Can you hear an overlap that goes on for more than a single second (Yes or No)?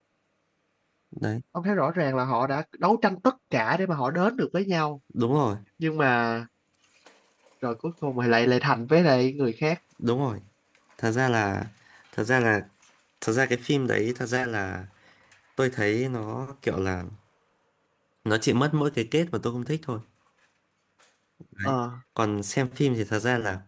No